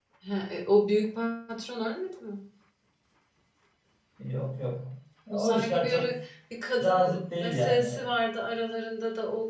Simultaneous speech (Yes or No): Yes